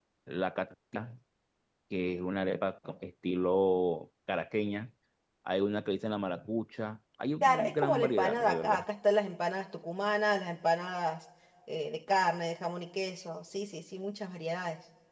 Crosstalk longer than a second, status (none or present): present